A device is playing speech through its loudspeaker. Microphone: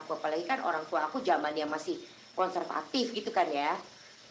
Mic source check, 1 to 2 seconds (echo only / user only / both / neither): echo only